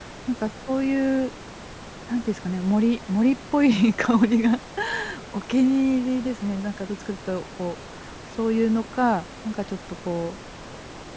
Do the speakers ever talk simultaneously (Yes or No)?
No